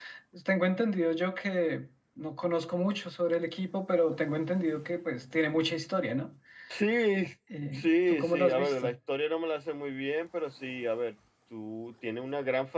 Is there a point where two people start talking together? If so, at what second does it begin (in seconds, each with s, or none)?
7.7 s